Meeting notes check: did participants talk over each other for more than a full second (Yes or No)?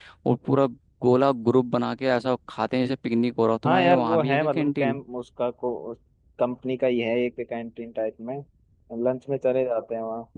Yes